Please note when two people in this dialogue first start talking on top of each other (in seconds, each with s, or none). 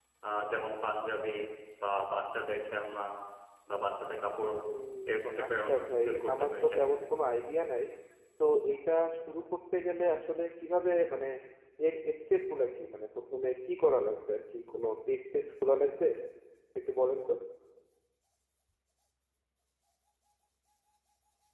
5.1 s